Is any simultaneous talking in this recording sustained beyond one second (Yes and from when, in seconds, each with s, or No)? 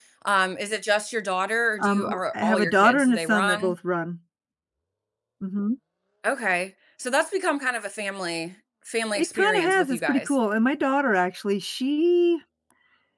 Yes, from 1.8 s